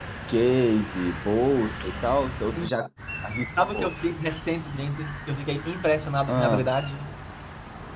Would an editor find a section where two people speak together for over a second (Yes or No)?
No